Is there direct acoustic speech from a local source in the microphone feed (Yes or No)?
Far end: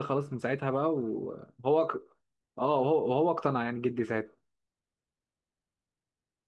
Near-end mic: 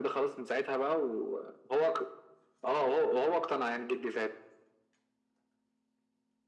No